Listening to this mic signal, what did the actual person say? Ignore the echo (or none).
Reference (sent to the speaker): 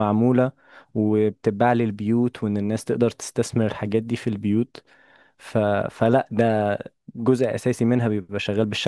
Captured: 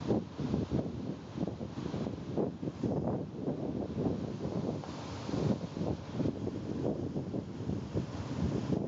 none